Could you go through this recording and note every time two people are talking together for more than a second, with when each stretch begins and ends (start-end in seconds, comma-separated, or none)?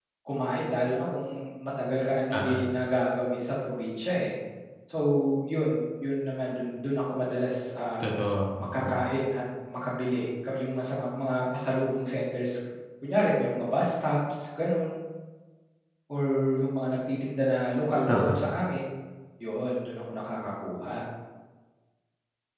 none